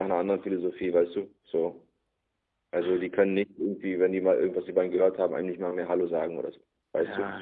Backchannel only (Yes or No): No